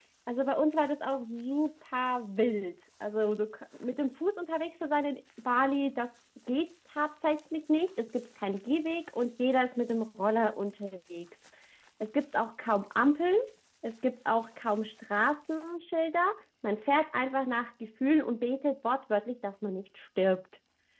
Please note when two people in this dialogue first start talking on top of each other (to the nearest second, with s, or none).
none